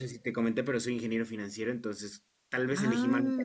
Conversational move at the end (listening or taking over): listening